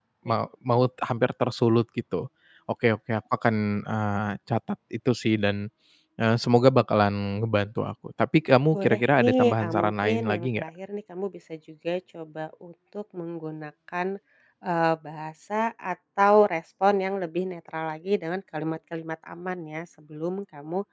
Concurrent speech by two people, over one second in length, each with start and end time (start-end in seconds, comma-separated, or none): 8.7-10.7